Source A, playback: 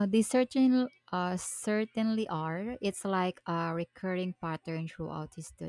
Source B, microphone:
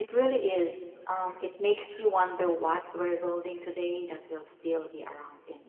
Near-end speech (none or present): present